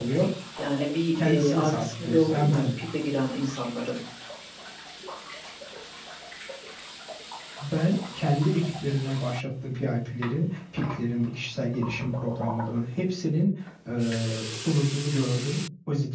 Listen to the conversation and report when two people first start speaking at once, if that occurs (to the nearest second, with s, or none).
1 s